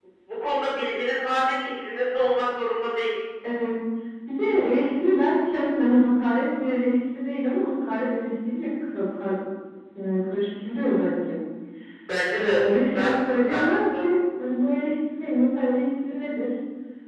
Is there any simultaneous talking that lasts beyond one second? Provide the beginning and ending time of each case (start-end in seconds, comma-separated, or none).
12.3-14.1